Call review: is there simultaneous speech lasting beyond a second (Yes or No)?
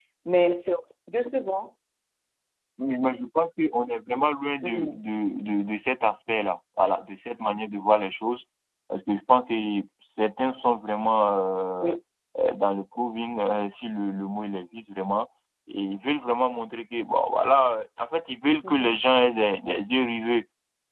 No